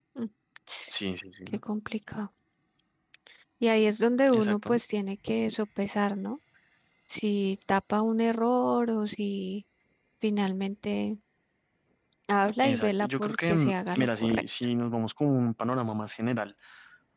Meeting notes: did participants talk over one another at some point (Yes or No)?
Yes